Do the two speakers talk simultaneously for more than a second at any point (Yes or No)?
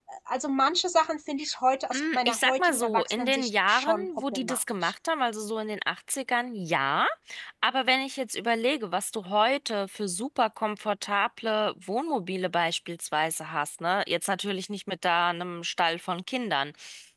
Yes